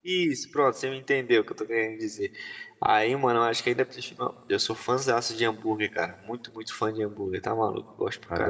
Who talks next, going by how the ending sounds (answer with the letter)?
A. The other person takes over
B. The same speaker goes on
A